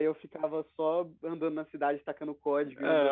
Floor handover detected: Yes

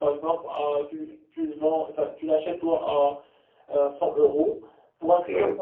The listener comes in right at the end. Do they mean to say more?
No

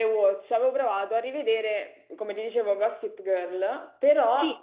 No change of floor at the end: Yes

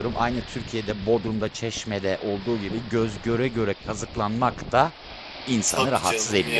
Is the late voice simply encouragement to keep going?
No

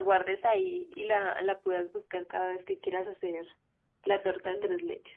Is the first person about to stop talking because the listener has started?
Yes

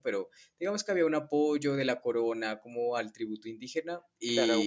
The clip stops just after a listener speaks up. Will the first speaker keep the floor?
No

